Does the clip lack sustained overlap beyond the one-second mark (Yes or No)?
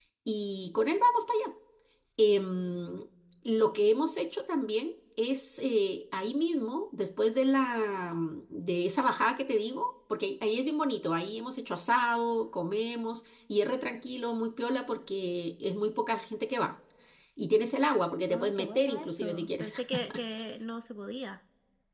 No